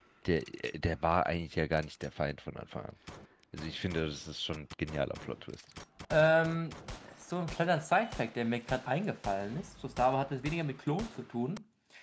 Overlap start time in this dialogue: none

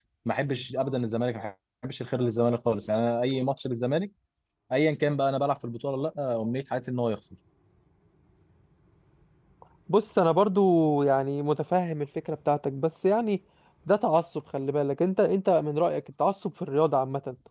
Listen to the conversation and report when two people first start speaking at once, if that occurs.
none

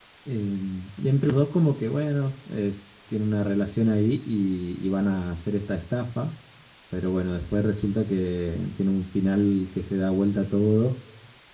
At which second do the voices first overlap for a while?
none

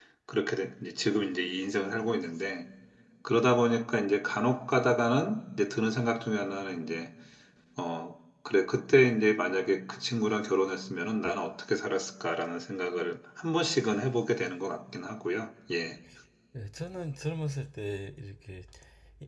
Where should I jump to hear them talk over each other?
none

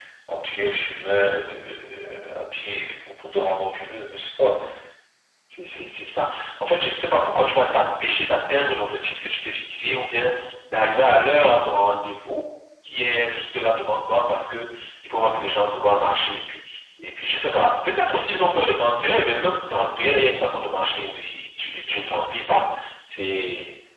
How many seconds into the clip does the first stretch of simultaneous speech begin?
none

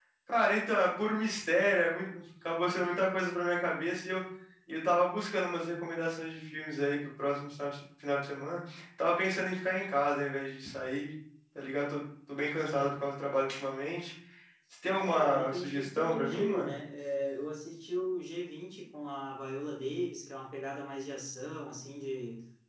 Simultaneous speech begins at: 15 s

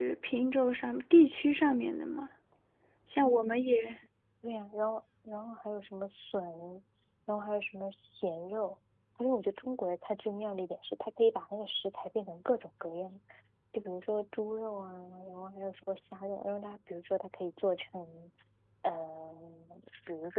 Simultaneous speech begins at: none

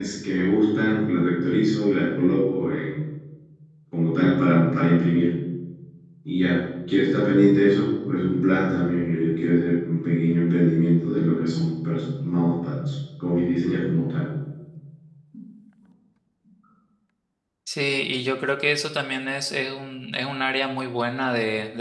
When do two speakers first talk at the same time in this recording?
none

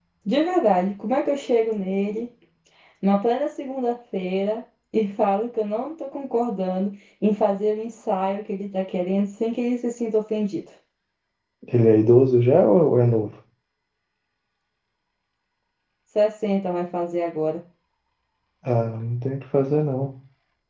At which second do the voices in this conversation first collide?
none

